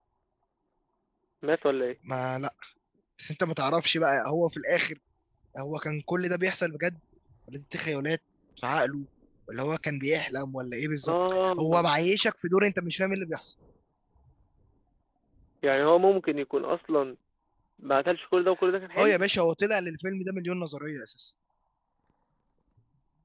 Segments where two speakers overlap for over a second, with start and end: none

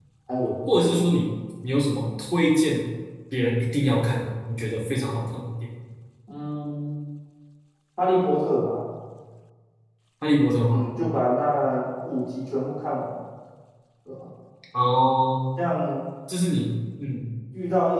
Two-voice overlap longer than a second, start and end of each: none

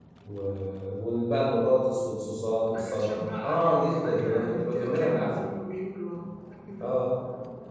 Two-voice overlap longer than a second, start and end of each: 2.7-5.5

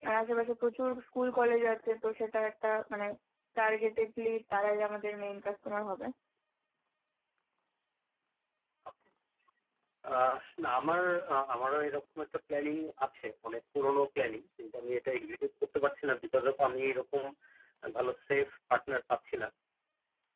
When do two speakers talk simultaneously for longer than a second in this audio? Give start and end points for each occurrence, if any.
none

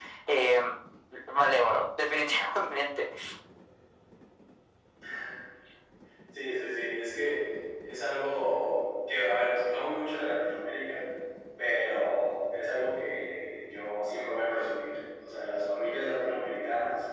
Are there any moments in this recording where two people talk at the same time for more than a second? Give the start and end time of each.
none

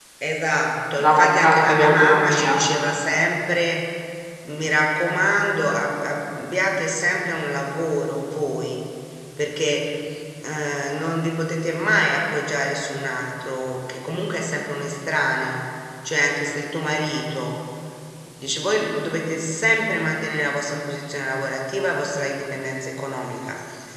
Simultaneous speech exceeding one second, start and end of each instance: 1.0-2.6

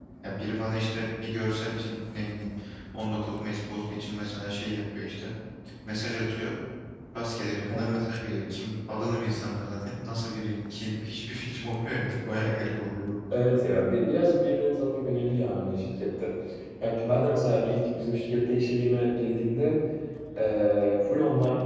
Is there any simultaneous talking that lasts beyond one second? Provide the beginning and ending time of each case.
none

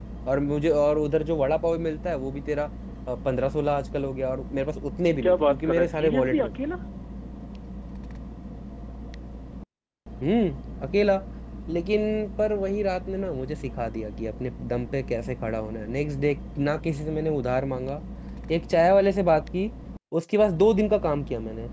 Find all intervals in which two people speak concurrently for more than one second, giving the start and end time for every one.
5.2-6.5

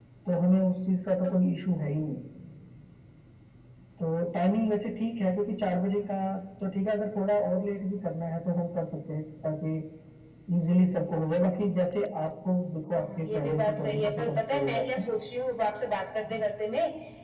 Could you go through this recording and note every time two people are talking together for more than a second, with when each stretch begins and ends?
12.9-15.1

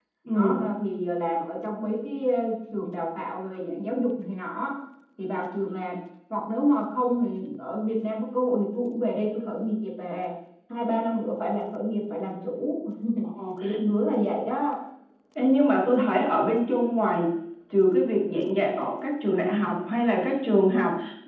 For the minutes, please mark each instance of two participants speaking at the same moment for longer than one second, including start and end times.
none

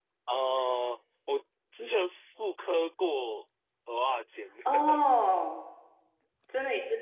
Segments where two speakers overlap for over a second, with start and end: none

